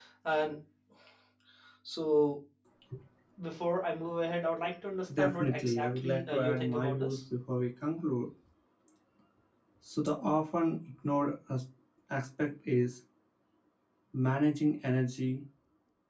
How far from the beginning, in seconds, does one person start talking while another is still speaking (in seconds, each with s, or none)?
5.1 s